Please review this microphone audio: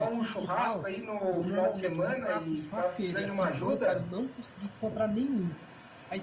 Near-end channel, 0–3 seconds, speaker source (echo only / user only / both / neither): both